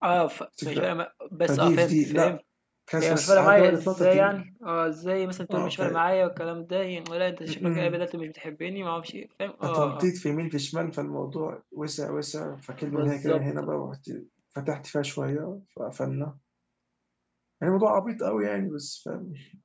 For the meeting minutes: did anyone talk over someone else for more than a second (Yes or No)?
Yes